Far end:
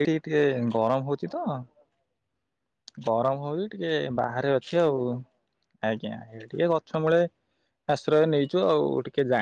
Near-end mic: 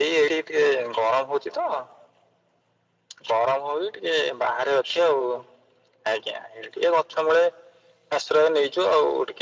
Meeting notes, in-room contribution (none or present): none